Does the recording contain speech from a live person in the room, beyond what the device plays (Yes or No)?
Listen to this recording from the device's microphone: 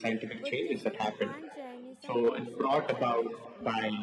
Yes